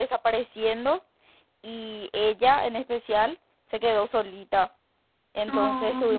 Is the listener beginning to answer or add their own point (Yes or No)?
No